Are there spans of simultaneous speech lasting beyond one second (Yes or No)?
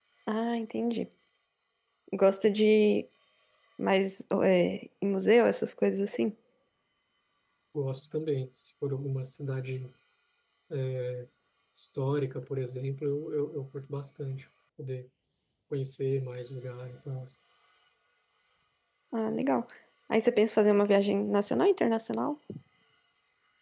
No